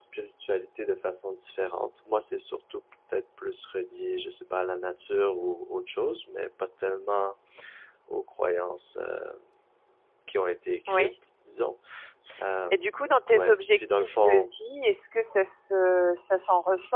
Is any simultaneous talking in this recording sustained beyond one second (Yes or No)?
Yes